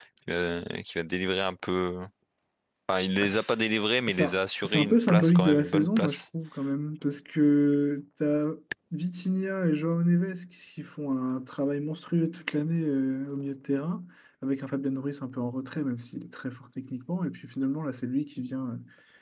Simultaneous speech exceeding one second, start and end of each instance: 4.1-6.2

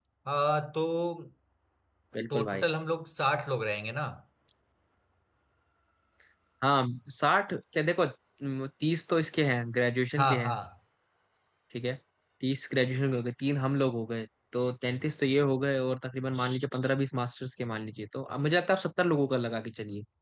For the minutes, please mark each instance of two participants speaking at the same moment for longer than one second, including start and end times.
none

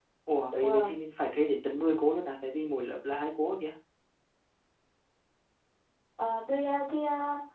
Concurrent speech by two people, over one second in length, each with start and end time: none

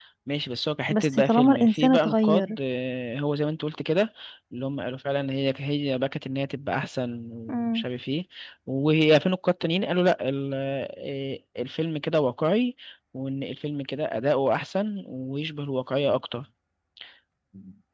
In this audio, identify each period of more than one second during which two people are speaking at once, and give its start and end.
0.9-2.6

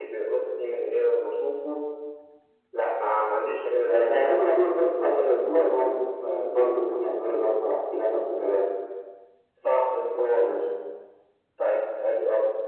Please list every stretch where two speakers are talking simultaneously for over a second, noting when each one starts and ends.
3.8-5.2

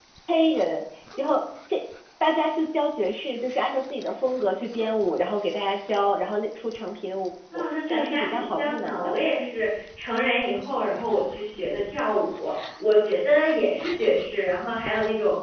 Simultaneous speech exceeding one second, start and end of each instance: 7.9-9.2

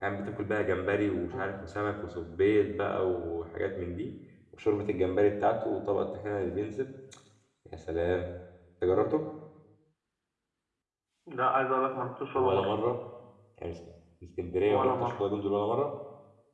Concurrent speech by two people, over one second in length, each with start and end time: none

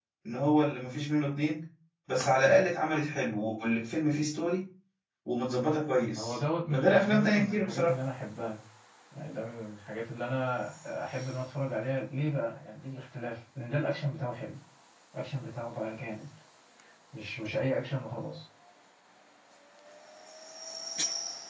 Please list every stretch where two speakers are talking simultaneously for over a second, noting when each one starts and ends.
6.2-7.9

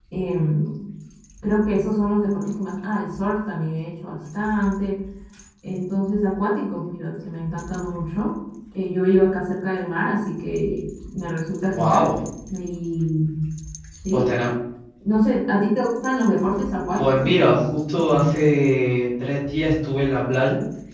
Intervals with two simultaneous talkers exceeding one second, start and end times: 17.0-18.4

